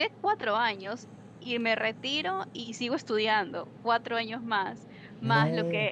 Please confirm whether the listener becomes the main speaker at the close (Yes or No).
No